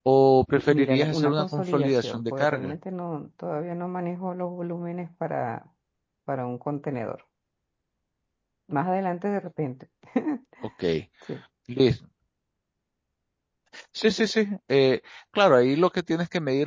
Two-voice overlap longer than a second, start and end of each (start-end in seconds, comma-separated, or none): 0.7-2.7